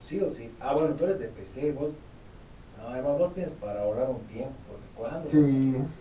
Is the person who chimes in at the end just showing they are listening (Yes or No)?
No